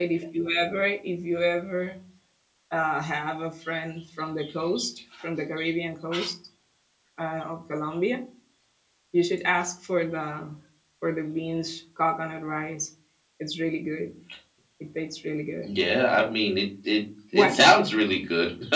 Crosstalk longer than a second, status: none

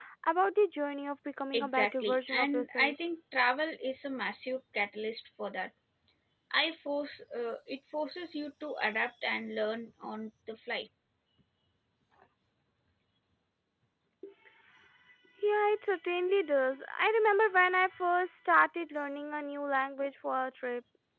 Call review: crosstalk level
present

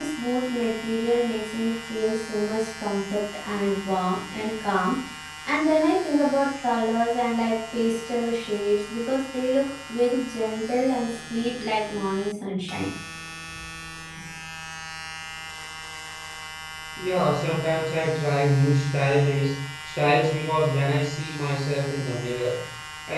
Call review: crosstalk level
none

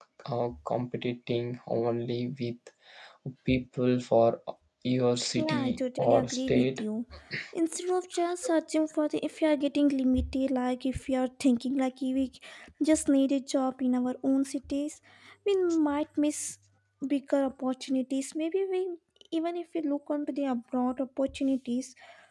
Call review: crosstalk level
present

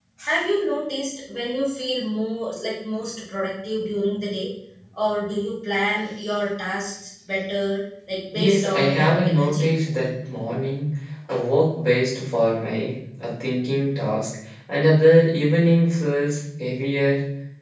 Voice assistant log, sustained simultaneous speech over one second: present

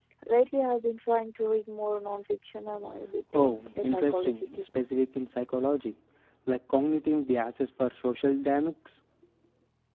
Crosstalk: present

